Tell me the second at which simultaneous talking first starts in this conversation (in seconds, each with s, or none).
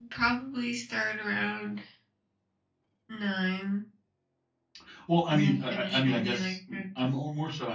5.3 s